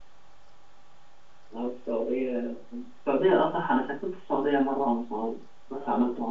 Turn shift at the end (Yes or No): Yes